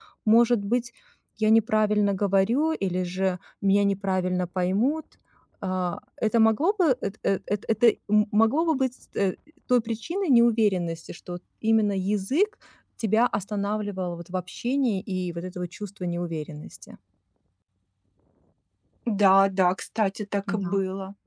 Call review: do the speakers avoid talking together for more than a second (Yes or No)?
Yes